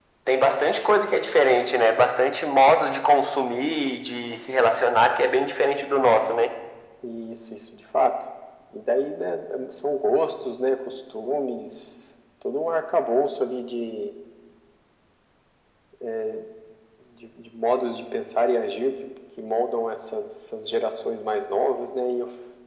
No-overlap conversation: Yes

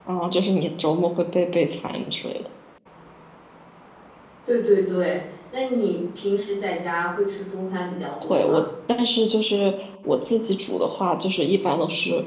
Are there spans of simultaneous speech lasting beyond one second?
No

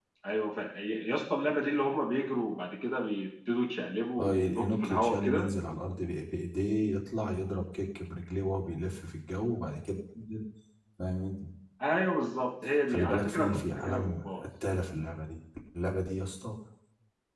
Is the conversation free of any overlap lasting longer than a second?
No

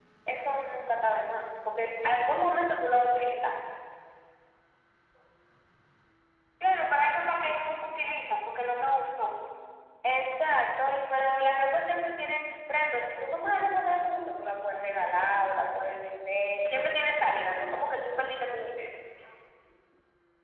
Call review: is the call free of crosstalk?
Yes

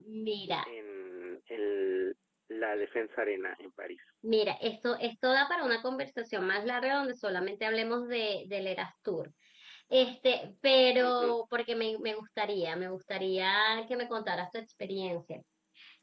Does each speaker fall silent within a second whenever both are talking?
Yes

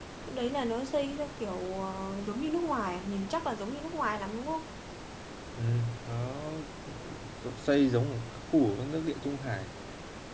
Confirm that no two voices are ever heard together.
Yes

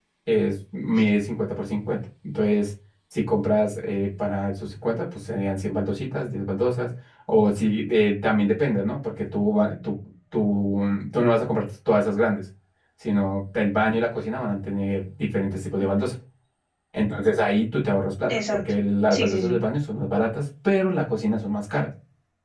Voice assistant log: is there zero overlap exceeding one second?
Yes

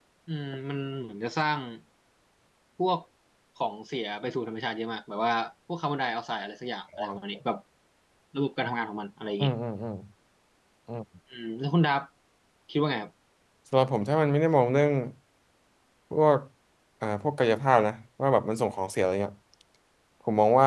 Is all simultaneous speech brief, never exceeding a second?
Yes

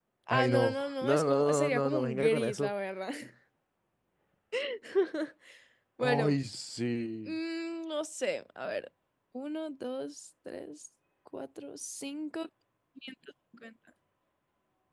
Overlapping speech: Yes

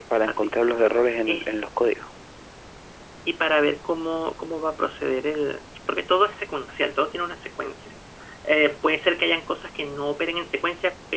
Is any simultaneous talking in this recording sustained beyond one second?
No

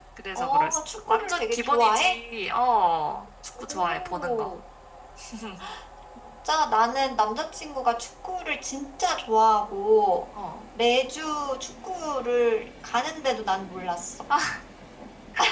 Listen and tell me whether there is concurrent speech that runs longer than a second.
Yes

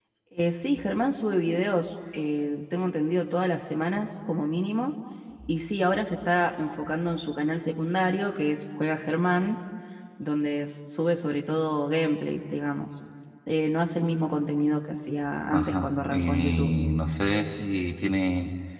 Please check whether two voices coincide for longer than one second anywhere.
Yes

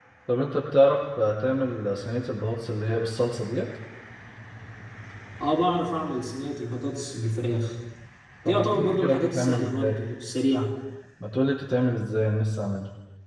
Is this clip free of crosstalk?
No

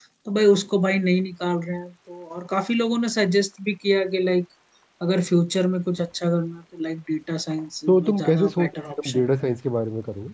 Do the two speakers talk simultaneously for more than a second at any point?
Yes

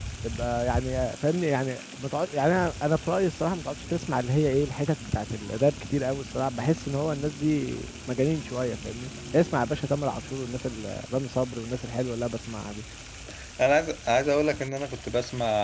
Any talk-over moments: No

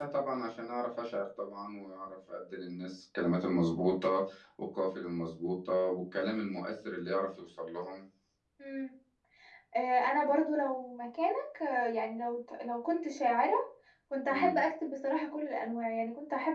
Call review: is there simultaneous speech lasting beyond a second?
No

